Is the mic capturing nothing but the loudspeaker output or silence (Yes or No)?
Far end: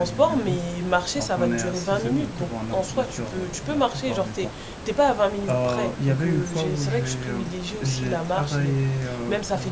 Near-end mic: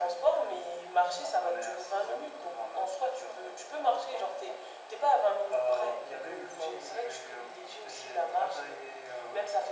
Yes